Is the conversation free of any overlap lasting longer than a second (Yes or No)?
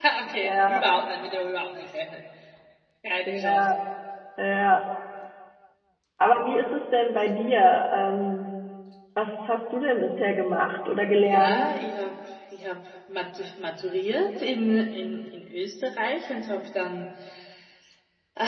Yes